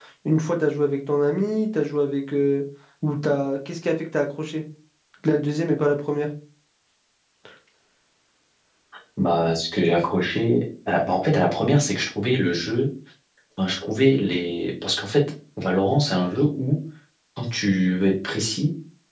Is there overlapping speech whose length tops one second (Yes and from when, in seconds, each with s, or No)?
No